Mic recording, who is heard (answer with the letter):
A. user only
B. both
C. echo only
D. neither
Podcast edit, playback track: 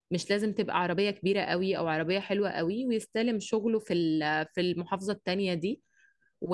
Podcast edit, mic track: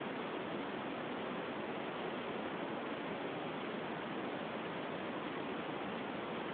D